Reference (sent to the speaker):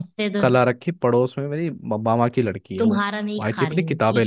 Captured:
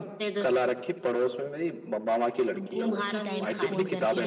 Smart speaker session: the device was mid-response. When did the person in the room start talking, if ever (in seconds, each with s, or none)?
2.6 s